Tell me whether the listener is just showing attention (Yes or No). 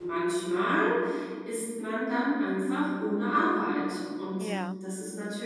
Yes